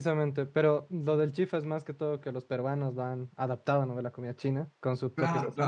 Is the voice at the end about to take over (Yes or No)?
Yes